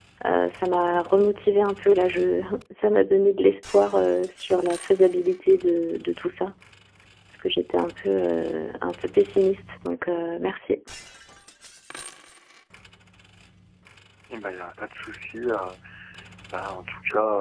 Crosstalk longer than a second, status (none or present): none